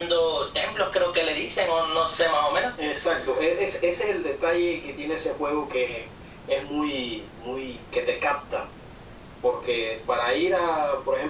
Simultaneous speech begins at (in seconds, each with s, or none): none